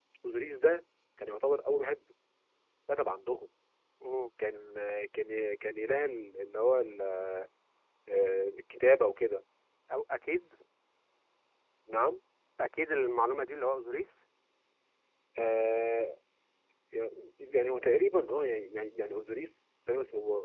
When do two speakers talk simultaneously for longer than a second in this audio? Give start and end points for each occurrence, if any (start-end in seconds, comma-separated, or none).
none